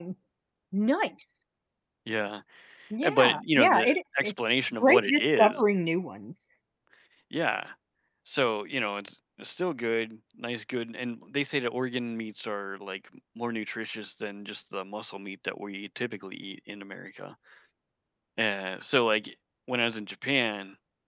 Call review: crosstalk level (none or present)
present